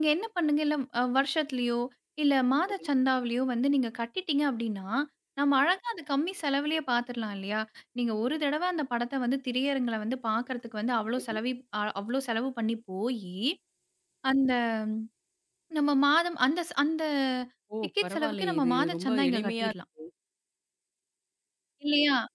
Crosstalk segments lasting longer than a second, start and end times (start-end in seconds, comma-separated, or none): 18.0-19.7